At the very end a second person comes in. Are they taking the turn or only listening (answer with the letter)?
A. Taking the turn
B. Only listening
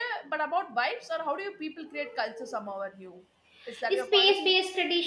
A